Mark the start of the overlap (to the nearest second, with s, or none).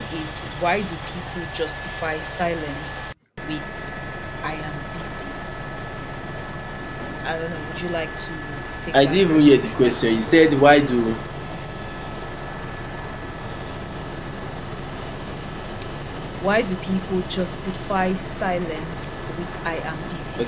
9 s